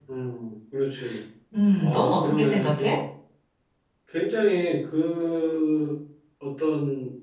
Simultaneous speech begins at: 2 s

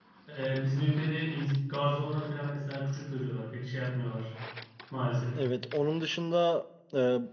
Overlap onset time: none

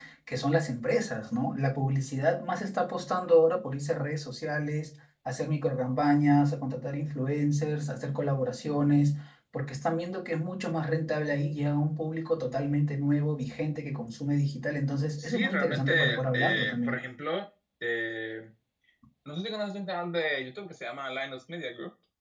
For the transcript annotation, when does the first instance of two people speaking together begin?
15 s

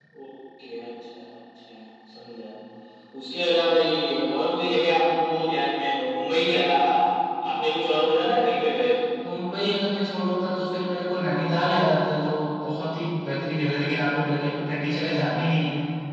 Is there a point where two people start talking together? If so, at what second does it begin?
none

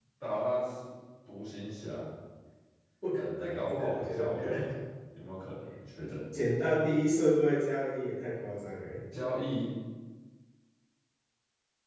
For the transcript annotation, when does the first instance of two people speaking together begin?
3 s

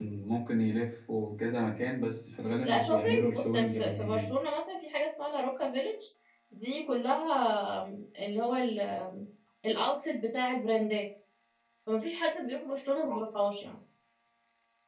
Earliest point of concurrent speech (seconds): 3 s

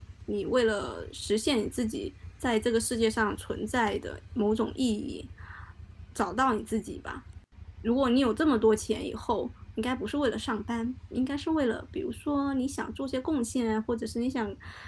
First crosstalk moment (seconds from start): none

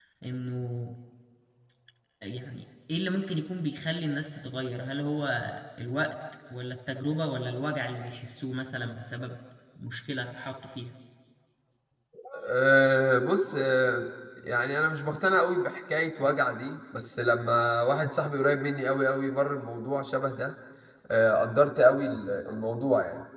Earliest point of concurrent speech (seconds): none

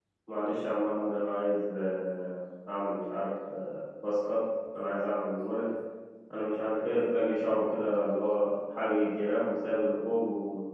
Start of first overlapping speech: none

